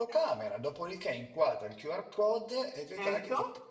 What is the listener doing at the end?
listening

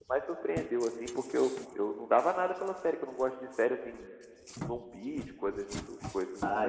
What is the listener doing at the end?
taking over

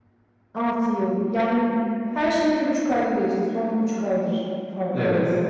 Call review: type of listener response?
taking over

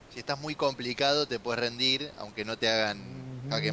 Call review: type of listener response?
taking over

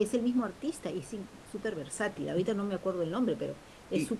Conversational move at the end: taking over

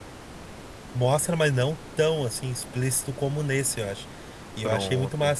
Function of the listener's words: listening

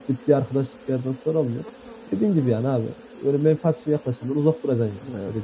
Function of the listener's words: taking over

